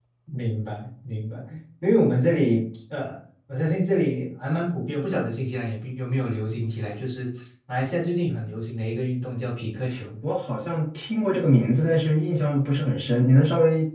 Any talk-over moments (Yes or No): No